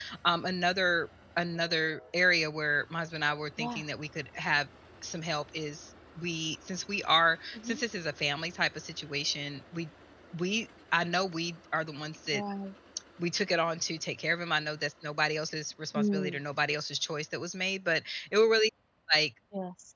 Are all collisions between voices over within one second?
Yes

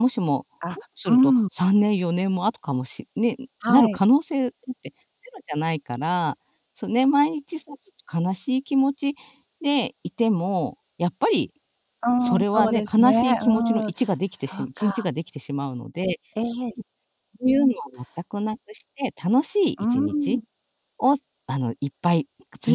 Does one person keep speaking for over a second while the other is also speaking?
Yes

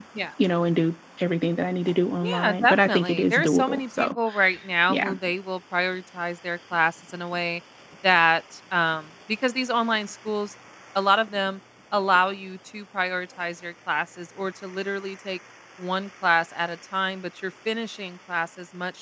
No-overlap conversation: No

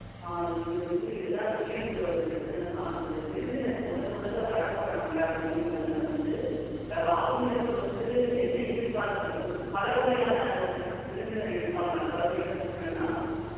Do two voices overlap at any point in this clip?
No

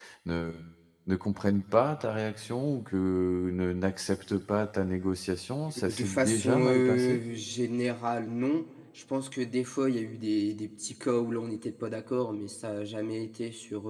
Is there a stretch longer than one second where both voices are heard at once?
Yes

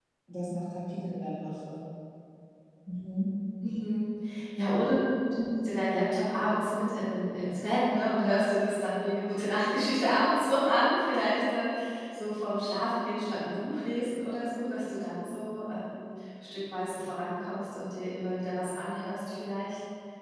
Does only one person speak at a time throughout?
Yes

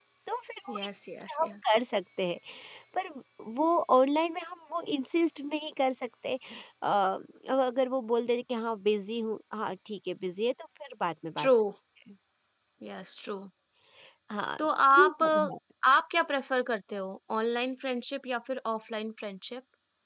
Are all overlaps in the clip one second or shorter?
Yes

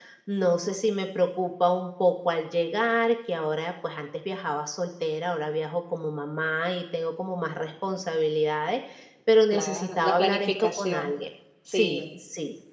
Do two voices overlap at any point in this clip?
Yes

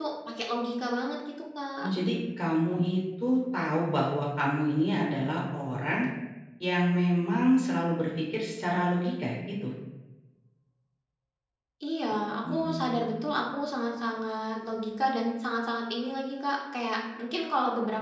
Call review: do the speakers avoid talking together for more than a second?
Yes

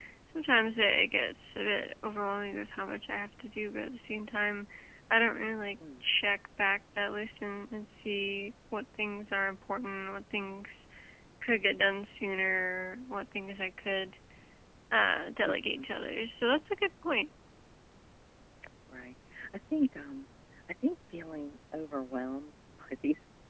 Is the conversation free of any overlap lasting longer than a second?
Yes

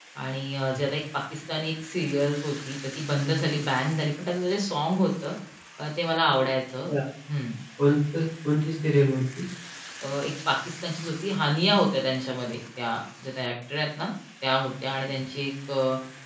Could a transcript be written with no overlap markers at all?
Yes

